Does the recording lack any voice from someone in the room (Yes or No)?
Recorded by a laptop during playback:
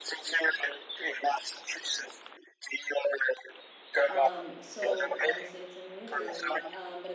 No